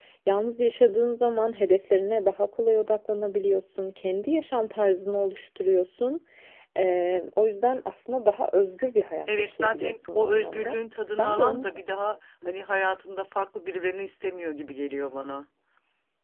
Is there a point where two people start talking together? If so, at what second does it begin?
9.3 s

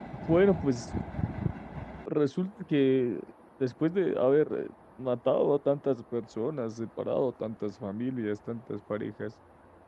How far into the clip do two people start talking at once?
none

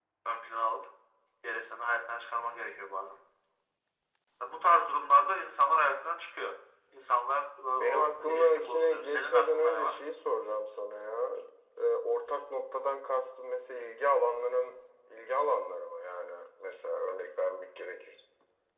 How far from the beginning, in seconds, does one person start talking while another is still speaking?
7.8 s

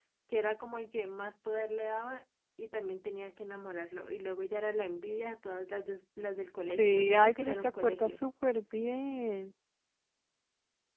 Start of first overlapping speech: 6.7 s

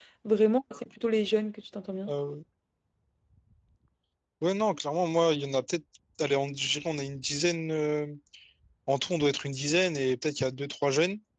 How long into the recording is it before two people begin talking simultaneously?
none

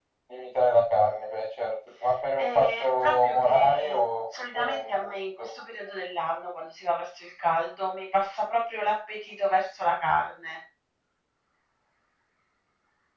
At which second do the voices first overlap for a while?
2.4 s

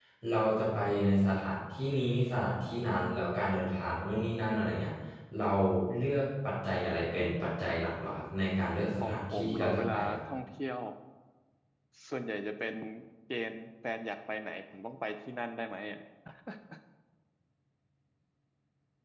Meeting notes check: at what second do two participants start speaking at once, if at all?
9.0 s

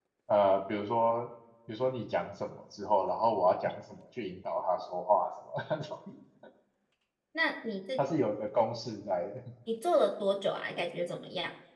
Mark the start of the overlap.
none

